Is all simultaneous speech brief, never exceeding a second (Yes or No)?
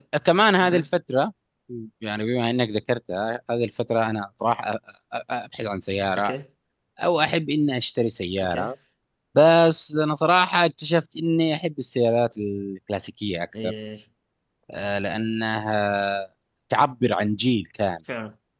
Yes